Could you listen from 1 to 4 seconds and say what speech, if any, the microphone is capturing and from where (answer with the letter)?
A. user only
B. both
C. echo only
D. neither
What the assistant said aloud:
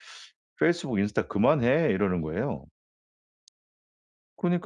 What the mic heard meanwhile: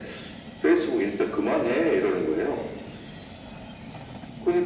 C